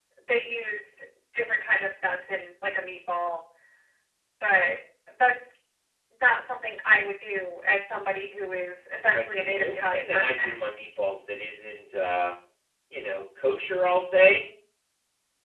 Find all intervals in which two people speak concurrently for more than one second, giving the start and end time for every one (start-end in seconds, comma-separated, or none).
9.1-10.6